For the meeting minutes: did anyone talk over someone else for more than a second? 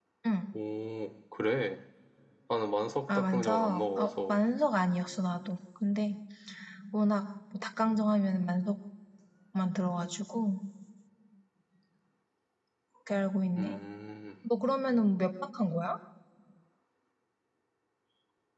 Yes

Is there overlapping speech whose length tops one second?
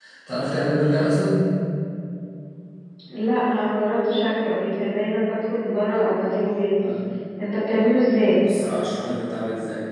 No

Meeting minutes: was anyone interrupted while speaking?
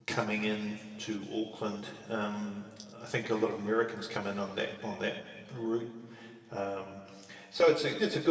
No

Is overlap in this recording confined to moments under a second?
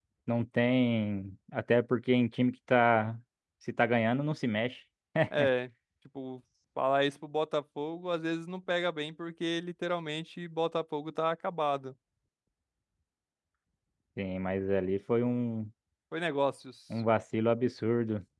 Yes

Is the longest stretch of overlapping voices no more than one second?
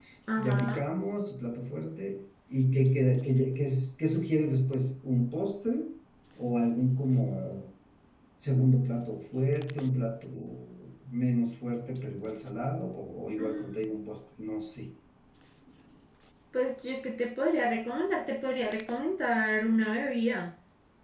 Yes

